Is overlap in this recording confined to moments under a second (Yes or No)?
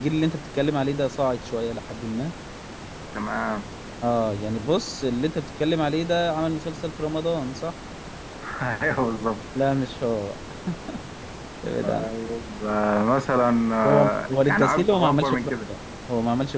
No